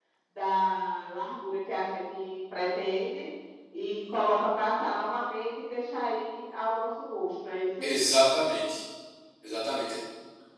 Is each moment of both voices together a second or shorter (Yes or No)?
Yes